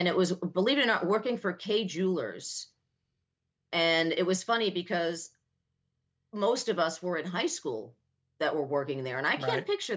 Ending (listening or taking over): listening